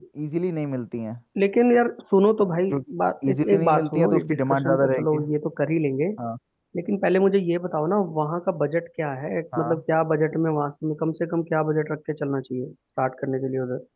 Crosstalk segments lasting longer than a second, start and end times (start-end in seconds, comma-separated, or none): 3.3-5.2